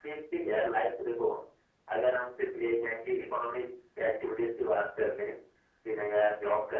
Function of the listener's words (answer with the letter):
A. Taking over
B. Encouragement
B